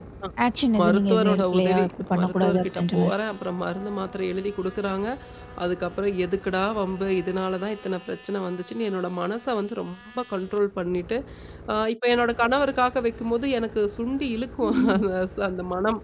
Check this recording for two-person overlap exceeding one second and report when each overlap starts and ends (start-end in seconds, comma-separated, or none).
0.8-3.1